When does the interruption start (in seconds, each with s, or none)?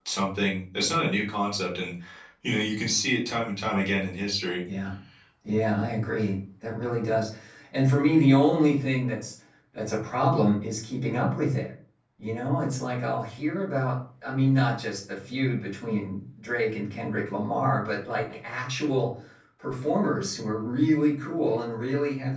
none